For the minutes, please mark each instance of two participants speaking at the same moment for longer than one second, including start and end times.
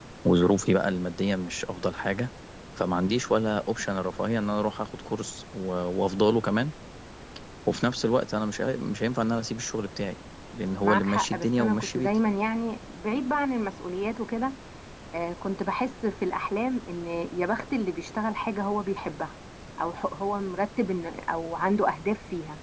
10.8-12.2

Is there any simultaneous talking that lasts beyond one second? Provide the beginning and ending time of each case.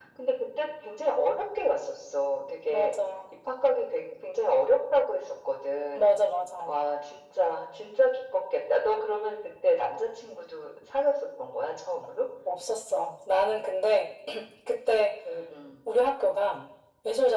none

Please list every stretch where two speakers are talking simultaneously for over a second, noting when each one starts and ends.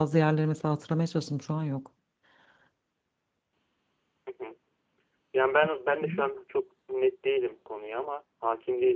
none

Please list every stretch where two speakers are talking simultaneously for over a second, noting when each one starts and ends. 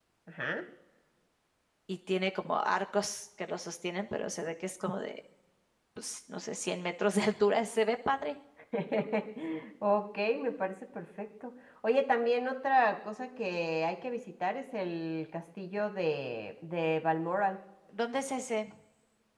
none

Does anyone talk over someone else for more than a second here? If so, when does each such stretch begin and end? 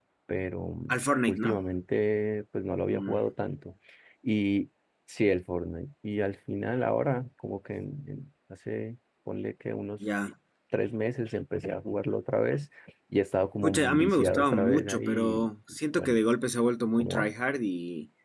13.6-16.2

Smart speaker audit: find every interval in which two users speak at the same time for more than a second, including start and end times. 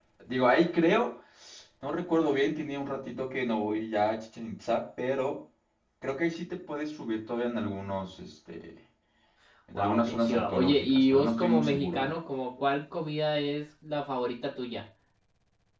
9.7-12.1

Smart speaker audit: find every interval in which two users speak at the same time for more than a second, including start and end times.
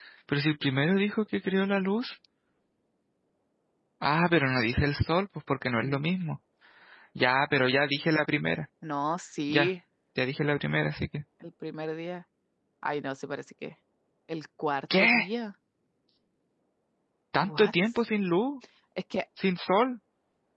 none

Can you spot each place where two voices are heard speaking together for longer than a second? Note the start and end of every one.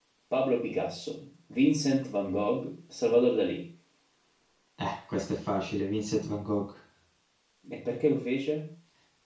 none

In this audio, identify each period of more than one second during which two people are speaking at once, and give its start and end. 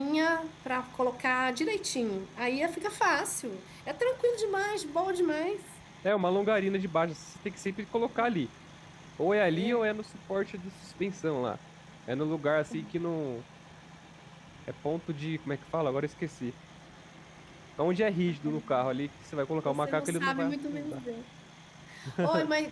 19.6-21.0

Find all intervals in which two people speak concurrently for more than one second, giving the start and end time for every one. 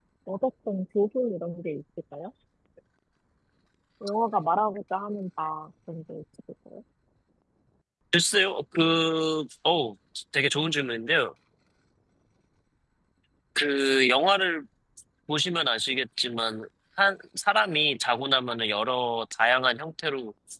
none

